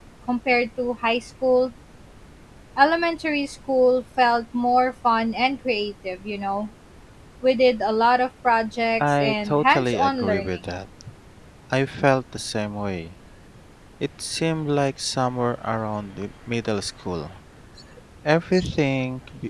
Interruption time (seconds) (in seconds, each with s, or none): 9.0 s